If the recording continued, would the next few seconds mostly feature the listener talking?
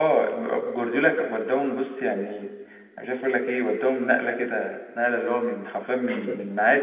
No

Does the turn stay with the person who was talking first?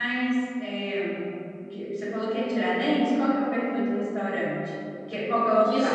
No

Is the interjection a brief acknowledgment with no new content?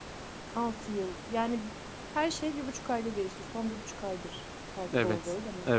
No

